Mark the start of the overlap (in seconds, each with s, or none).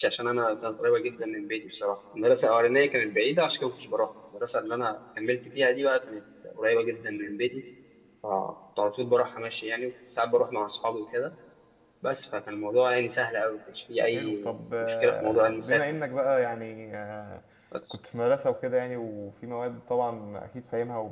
14.1 s